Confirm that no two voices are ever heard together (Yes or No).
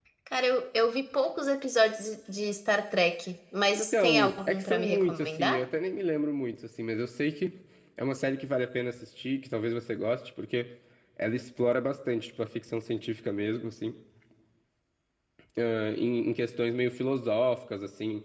No